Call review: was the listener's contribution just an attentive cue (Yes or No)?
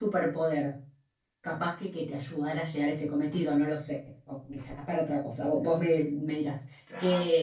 Yes